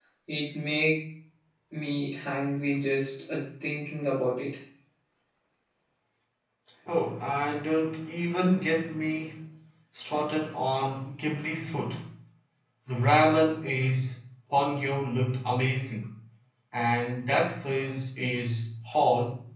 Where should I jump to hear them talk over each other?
none

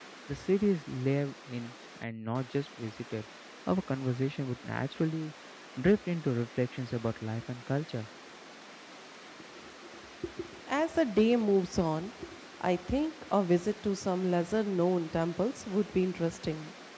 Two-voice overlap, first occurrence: none

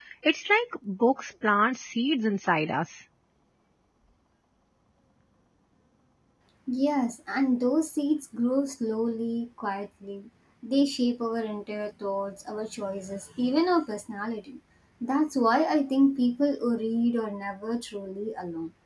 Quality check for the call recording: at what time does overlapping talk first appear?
none

